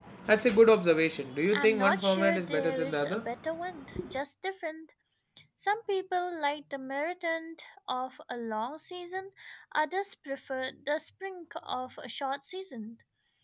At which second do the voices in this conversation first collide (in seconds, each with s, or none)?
1.5 s